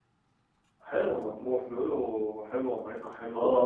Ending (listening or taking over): taking over